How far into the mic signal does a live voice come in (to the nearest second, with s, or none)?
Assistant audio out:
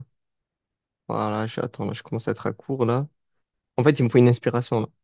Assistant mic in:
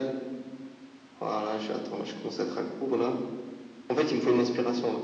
none